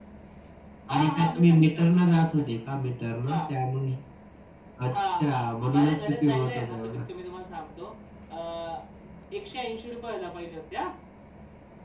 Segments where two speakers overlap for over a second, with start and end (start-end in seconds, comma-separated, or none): 0.9-2.3, 5.7-7.0